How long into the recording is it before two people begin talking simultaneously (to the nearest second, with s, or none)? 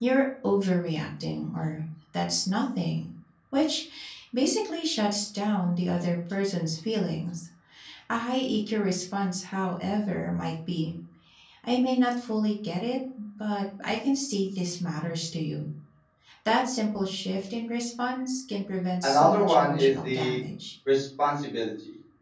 19 s